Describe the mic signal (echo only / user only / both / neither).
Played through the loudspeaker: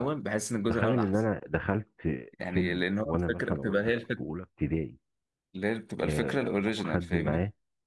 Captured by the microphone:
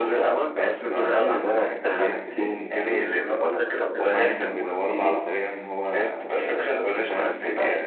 both